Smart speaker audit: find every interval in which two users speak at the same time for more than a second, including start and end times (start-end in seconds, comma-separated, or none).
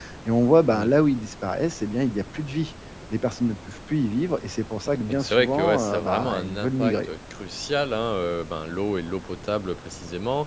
4.9-7.1